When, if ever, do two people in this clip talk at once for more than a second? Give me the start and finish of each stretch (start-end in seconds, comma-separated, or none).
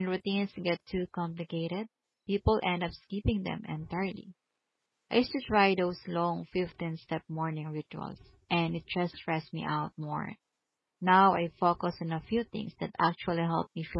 none